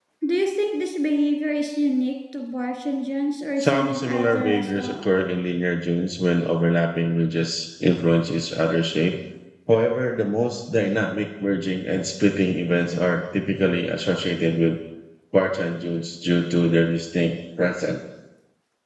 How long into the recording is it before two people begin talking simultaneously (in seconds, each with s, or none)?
3.6 s